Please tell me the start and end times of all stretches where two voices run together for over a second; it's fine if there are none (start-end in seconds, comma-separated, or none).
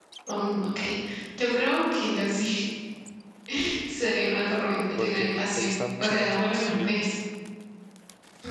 5.0-7.0